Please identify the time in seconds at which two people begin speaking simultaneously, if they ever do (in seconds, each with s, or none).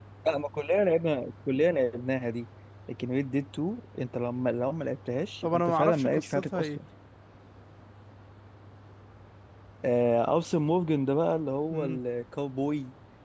5.4 s